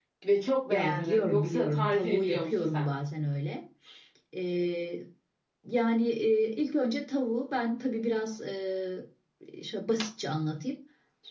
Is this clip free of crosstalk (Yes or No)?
No